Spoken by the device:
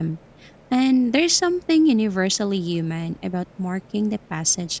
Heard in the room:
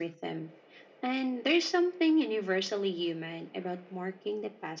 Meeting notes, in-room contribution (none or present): none